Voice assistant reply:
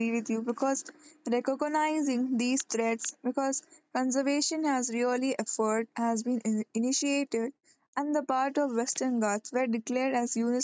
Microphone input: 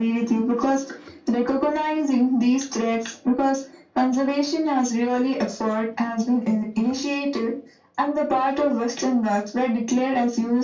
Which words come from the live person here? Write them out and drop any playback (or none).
none